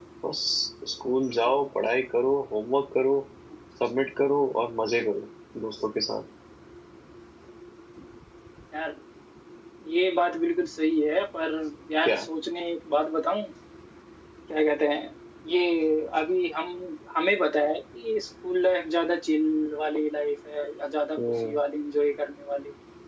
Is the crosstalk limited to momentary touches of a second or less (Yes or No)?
Yes